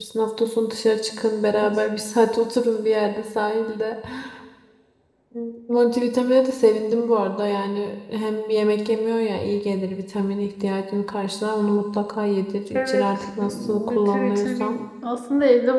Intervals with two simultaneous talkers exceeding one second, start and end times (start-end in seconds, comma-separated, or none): 12.7-14.8